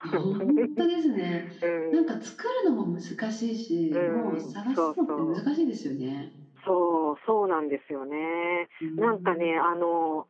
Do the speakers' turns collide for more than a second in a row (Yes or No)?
Yes